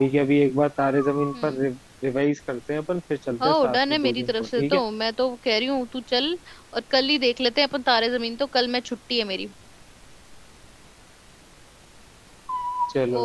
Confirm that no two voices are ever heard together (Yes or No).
No